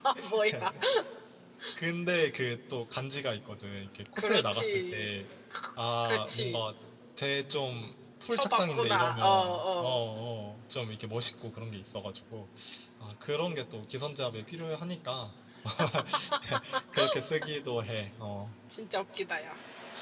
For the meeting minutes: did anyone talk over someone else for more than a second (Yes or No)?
Yes